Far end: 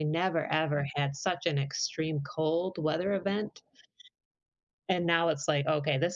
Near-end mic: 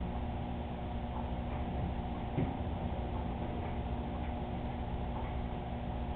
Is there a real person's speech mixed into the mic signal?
No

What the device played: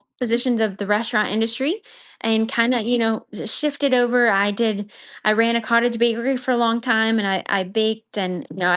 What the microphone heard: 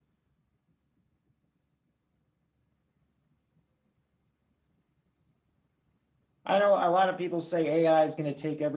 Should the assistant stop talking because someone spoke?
Yes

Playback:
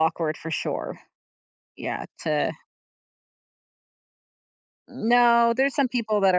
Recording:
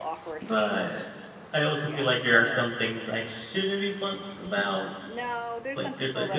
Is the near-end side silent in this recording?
No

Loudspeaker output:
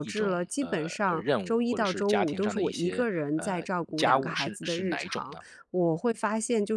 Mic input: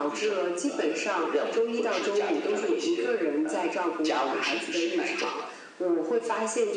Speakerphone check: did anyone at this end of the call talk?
No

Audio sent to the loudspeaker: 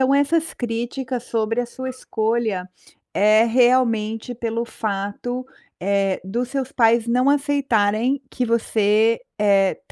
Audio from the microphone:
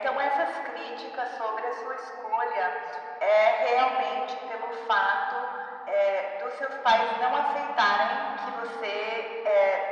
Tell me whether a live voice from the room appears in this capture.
No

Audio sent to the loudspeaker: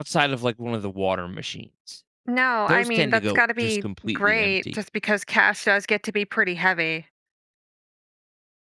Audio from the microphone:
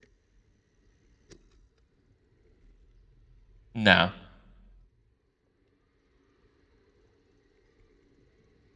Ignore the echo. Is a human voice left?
Yes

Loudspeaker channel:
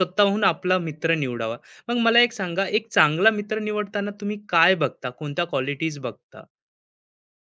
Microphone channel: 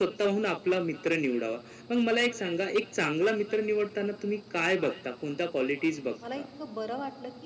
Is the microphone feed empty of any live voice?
No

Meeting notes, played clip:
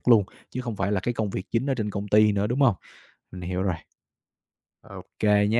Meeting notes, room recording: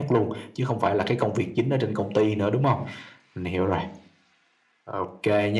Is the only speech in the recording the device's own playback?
Yes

